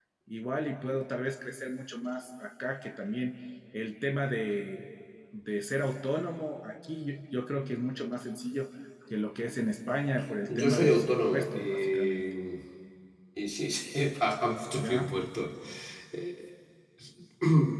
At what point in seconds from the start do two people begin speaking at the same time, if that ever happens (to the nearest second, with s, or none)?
11 s